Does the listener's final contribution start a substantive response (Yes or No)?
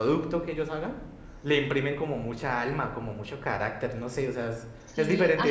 Yes